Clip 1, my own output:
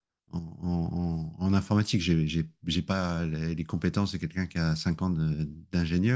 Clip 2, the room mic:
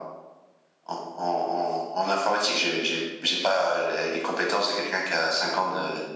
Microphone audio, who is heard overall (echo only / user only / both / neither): echo only